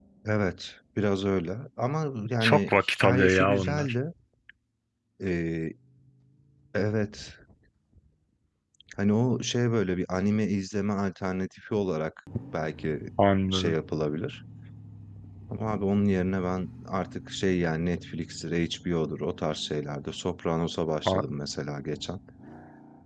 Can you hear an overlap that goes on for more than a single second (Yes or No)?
Yes